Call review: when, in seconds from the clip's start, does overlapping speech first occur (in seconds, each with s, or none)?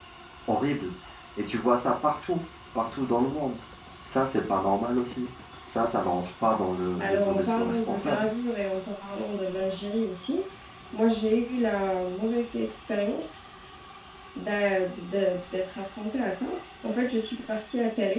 7.0 s